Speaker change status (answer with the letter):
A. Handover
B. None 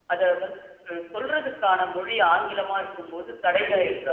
A